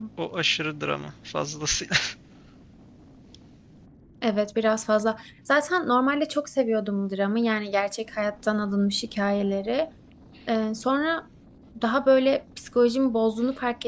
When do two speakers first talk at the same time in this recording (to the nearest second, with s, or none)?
none